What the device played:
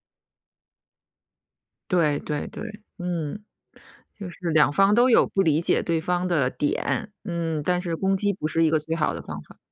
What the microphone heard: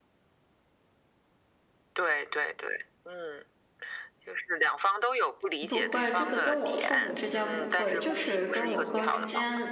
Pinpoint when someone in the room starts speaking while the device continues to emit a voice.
6 s

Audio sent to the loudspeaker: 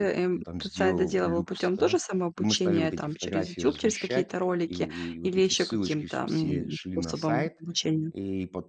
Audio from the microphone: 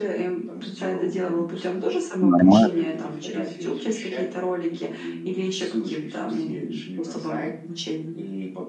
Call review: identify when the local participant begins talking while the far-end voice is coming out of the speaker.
2 s

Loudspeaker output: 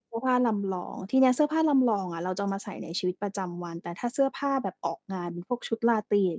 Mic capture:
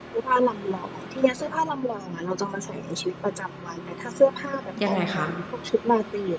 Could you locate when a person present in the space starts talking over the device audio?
5 s

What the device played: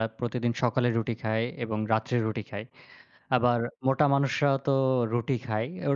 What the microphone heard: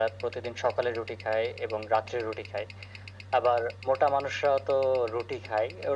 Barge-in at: none

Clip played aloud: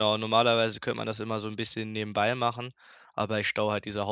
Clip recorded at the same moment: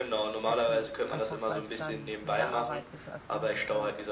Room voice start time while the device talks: 0 s

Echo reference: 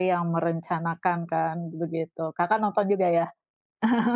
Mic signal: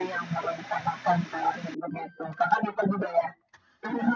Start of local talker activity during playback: none

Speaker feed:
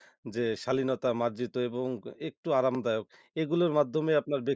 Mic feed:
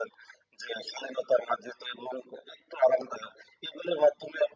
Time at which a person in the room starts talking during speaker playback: none

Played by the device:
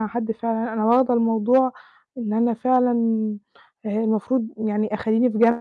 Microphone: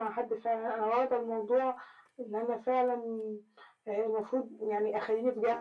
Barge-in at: none

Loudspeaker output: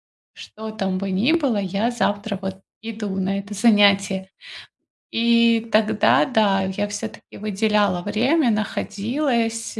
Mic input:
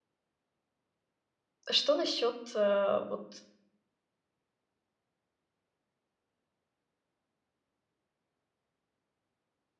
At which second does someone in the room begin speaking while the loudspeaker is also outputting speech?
2 s

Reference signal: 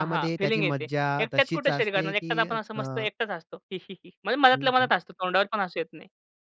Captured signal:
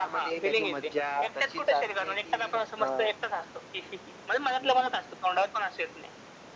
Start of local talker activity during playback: none

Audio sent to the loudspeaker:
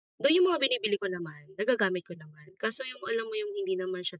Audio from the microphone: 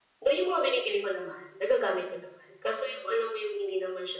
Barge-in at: none

